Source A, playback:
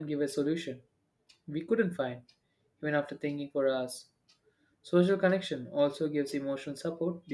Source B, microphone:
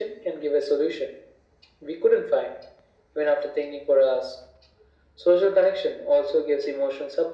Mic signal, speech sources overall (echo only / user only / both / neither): echo only